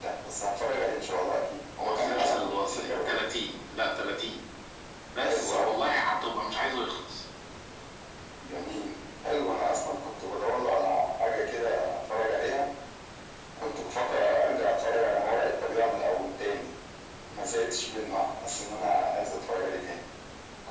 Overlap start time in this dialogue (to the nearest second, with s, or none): 2 s